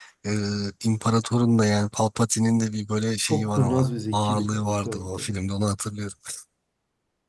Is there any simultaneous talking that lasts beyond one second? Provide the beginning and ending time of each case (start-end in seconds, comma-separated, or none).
3.3-5.4